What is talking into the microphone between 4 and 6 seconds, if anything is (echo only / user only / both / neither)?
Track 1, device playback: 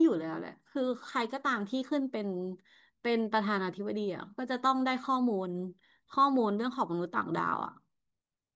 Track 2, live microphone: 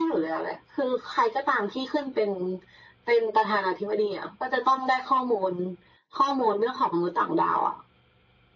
echo only